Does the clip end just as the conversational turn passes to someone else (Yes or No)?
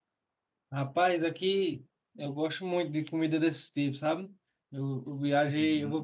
No